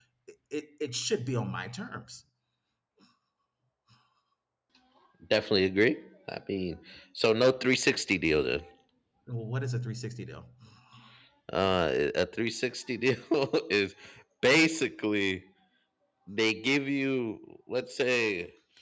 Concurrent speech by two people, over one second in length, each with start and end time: none

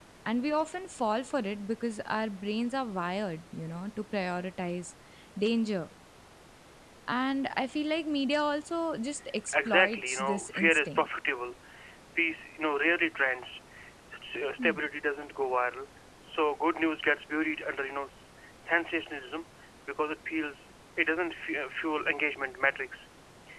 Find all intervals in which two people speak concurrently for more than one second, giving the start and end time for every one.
9.5-11.1

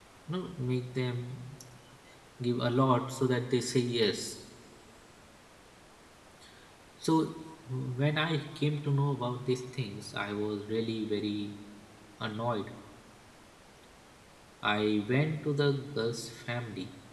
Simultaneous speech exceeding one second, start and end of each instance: none

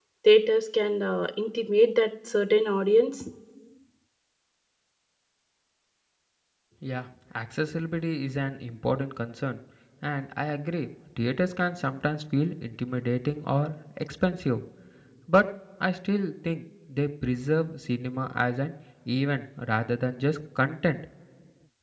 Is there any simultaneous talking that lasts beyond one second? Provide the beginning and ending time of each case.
none

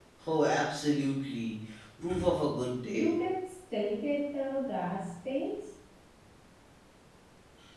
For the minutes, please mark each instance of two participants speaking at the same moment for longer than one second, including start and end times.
none

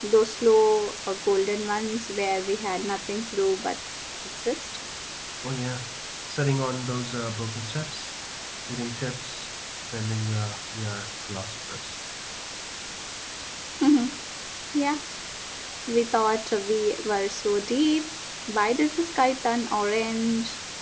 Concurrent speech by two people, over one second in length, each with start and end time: none

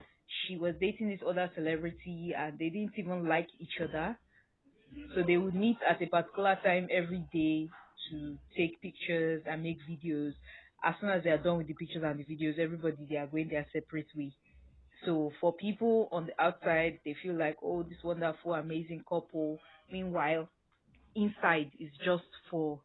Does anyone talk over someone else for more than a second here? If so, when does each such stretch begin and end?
none

